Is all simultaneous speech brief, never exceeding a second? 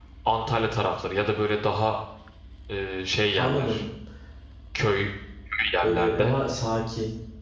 Yes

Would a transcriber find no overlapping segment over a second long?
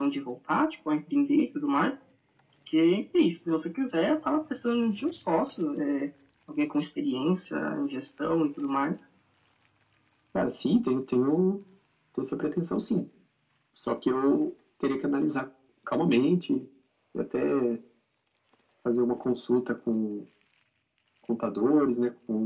Yes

